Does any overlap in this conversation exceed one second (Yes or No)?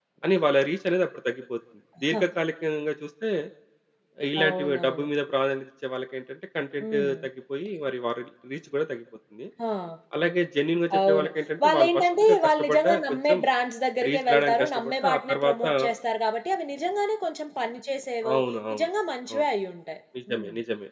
Yes